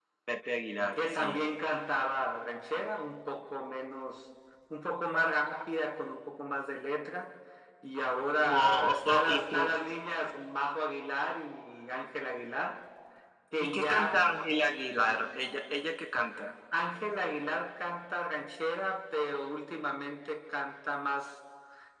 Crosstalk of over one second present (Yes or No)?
Yes